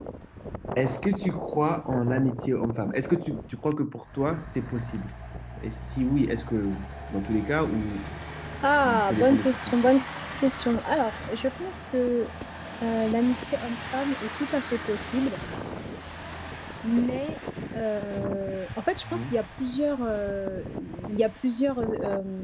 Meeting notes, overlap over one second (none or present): present